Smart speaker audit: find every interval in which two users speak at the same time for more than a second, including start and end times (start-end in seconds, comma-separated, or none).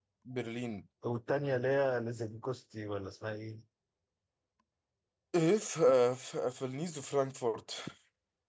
none